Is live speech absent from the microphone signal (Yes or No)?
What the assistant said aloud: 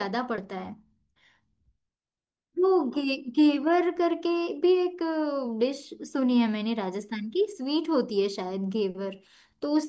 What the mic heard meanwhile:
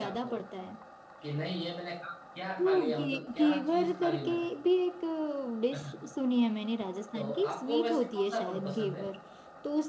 No